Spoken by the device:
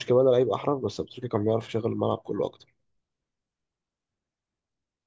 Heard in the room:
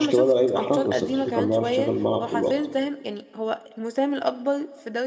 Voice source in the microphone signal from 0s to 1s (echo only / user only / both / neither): both